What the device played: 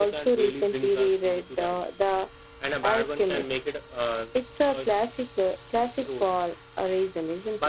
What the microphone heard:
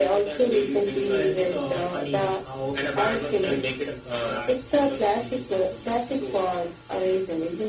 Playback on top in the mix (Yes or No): Yes